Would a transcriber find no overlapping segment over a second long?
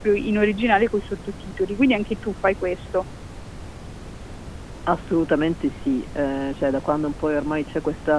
Yes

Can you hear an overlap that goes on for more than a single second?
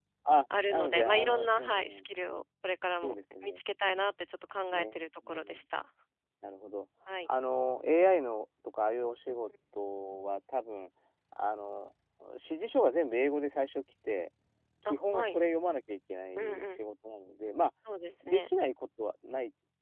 Yes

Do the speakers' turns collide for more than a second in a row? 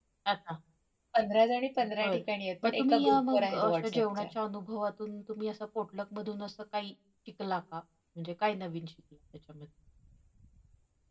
Yes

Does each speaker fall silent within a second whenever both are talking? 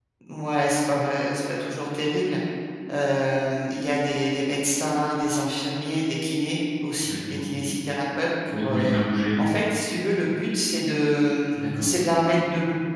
Yes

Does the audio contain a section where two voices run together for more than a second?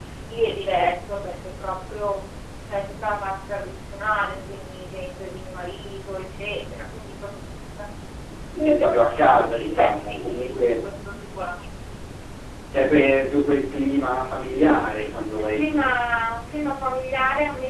Yes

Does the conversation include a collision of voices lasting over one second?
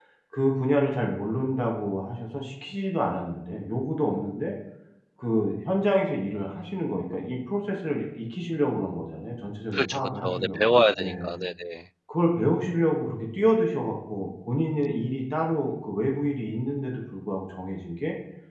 Yes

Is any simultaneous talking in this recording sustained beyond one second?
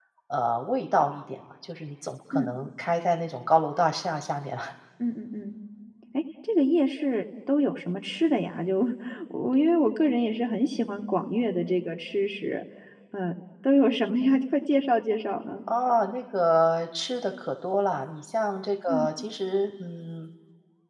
No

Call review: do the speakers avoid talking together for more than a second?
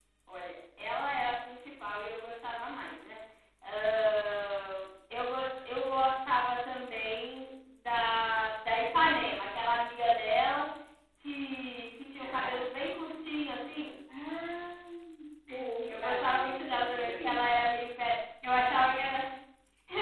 No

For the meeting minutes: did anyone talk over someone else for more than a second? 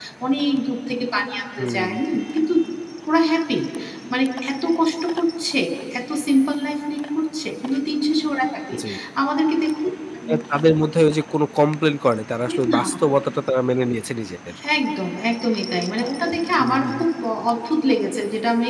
No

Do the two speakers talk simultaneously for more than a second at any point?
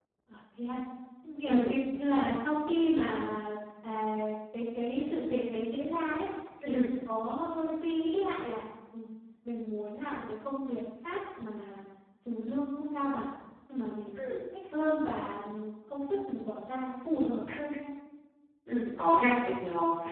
No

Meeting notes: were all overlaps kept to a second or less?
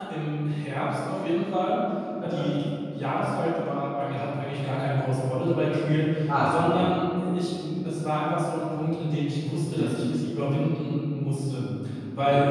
Yes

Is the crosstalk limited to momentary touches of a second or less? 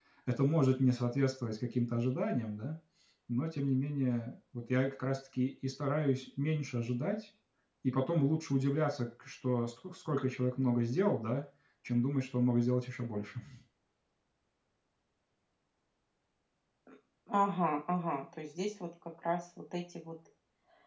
Yes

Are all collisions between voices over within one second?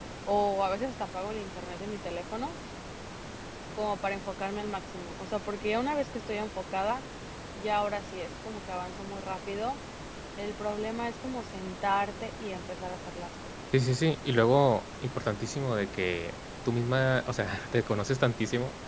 Yes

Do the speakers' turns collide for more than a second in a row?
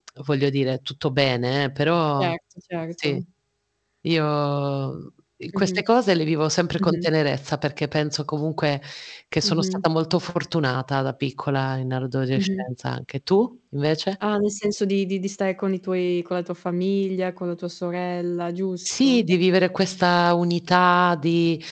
No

